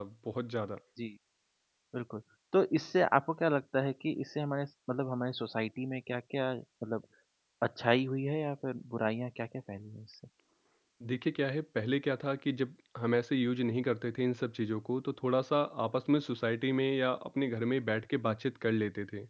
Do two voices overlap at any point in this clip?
No

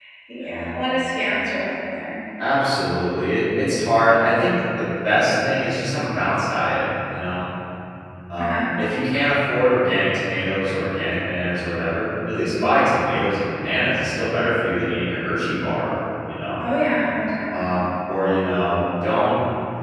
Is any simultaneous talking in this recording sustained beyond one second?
No

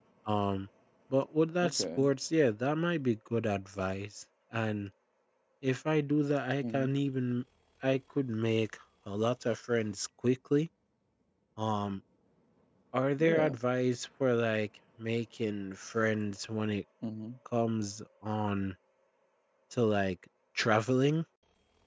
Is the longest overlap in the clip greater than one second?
No

